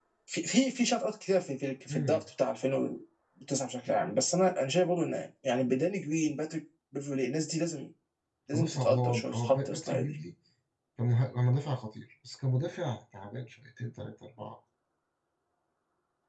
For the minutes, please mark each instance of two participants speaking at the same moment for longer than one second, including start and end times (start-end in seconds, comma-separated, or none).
8.5-10.2